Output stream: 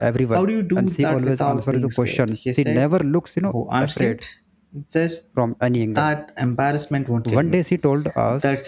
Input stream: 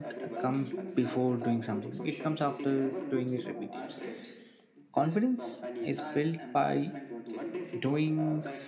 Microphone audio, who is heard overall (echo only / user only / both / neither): both